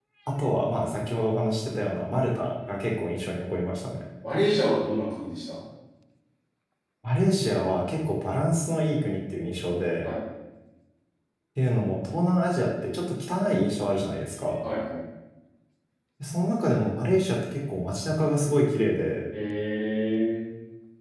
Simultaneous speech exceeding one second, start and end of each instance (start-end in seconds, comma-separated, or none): none